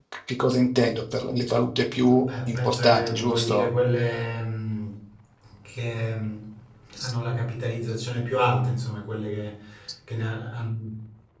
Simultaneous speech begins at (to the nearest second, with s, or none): 2 s